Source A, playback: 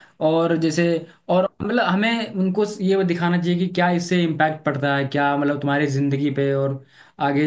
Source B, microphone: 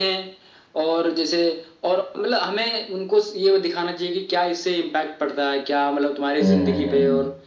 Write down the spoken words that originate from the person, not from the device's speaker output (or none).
हम्म हम्म